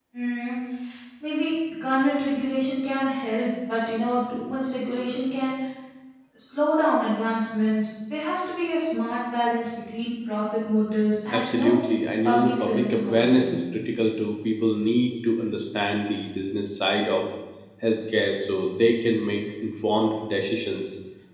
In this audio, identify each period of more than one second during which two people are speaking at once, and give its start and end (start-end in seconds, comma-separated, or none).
12.2-13.6